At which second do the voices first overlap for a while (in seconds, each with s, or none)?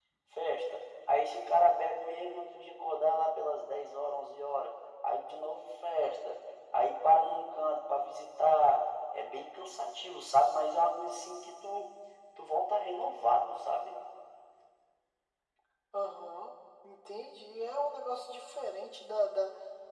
none